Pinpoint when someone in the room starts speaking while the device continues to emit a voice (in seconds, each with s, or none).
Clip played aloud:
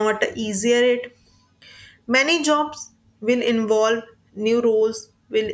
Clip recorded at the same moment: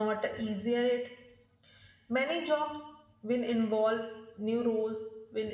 none